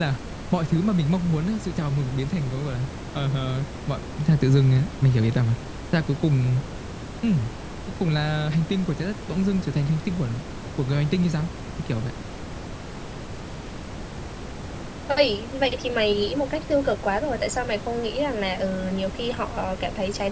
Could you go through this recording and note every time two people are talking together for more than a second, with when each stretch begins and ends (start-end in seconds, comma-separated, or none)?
none